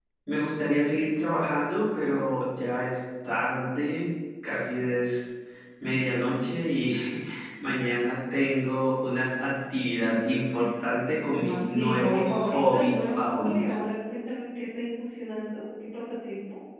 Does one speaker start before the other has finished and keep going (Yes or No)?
Yes